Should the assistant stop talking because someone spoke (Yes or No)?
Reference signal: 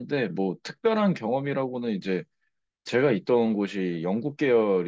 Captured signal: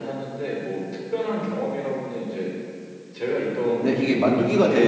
Yes